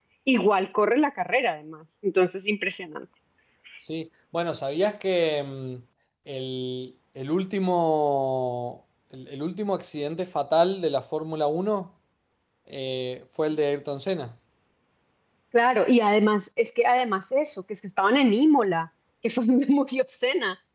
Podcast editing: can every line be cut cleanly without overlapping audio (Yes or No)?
Yes